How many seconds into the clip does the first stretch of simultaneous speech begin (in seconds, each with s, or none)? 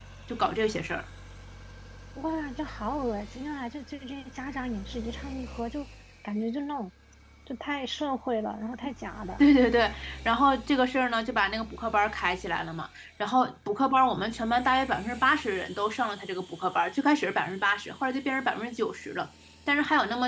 none